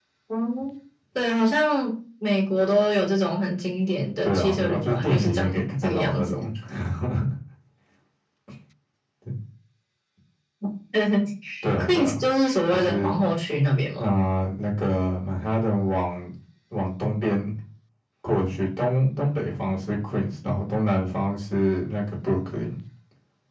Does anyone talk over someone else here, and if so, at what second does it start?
4.2 s

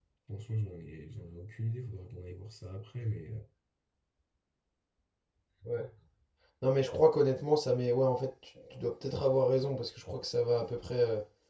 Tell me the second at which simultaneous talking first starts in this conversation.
none

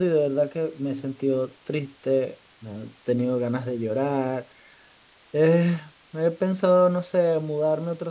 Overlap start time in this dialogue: none

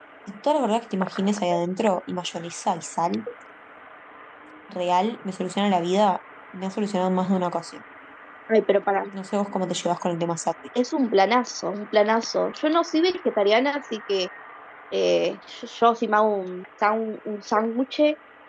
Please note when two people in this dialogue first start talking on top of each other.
none

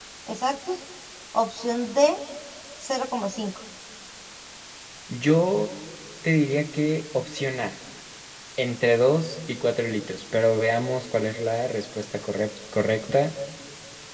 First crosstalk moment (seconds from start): none

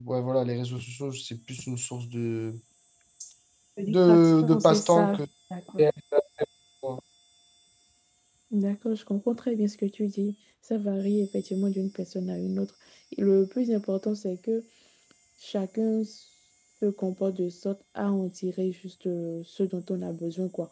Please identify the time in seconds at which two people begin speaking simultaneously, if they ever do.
3.9 s

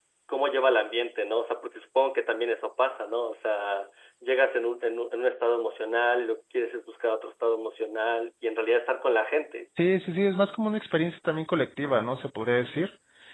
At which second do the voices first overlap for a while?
none

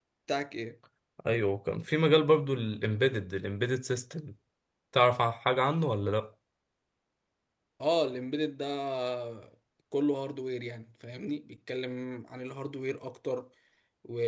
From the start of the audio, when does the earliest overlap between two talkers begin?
none

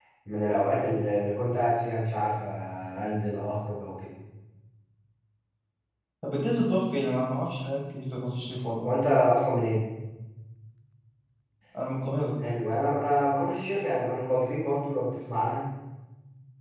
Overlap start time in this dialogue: none

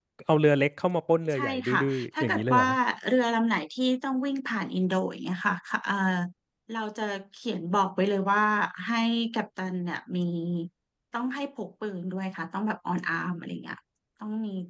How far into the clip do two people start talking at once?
1.3 s

